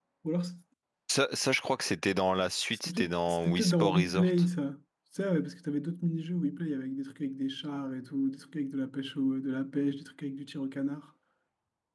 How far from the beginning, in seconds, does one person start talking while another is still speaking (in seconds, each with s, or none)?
2.7 s